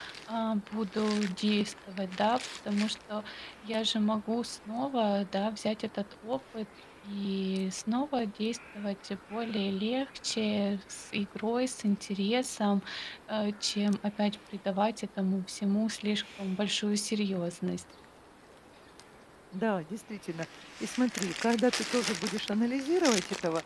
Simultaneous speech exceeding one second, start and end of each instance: none

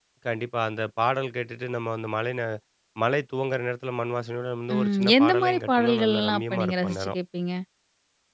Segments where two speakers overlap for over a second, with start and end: 4.7-7.2

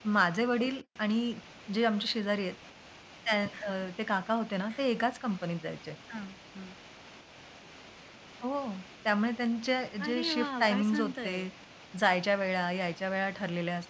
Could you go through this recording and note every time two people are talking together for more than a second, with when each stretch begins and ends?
10.1-11.3

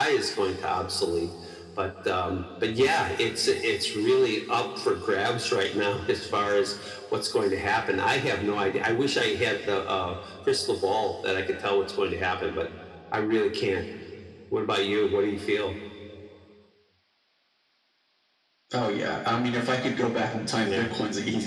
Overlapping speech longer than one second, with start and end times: none

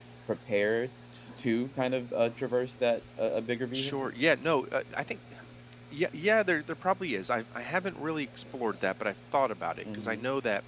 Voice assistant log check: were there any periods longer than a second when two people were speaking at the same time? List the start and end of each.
none

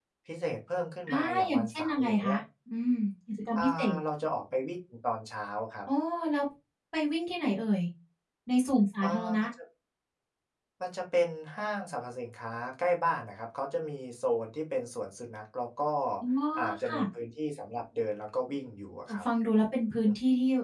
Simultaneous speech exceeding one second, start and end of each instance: 1.1-2.3

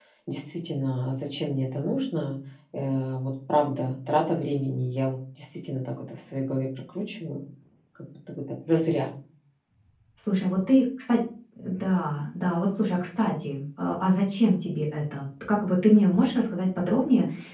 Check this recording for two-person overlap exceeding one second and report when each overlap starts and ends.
none

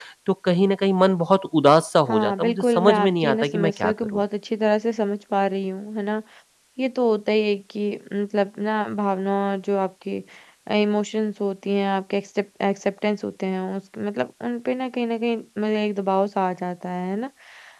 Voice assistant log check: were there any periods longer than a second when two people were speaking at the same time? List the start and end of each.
2.1-4.2

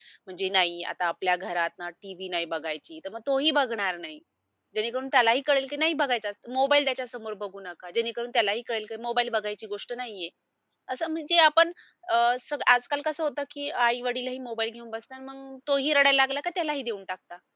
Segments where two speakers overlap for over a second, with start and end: none

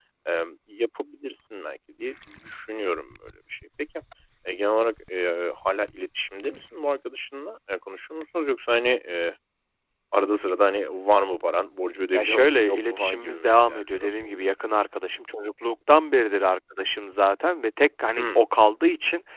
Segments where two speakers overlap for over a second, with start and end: 12.1-14.5

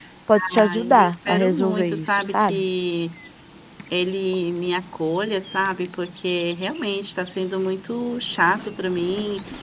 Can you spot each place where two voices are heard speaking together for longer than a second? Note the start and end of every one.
0.6-2.6

